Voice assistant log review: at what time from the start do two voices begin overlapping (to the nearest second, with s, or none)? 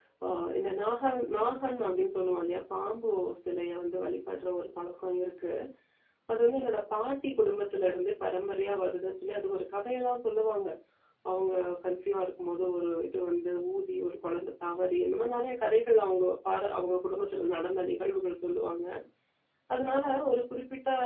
none